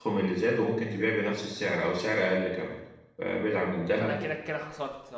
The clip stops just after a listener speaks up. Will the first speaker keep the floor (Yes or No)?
No